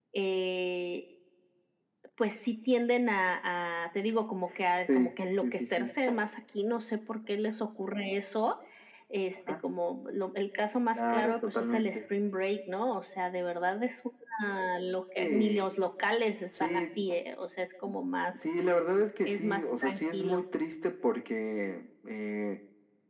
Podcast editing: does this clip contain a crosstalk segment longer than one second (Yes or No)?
Yes